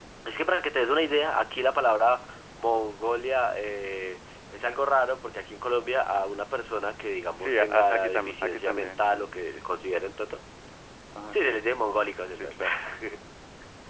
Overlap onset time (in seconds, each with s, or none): 7.4 s